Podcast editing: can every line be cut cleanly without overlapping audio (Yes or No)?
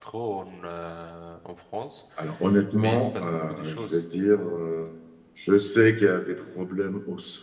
No